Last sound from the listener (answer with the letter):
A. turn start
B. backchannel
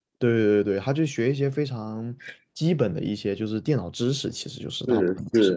A